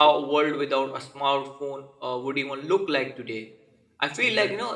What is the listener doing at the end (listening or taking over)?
listening